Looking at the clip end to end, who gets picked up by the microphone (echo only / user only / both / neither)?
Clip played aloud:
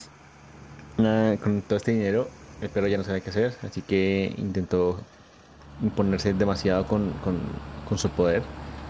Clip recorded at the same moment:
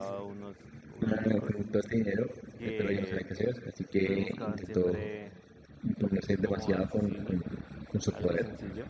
both